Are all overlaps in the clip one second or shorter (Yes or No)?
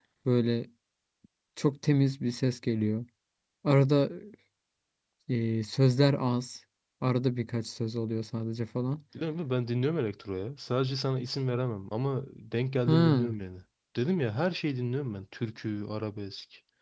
Yes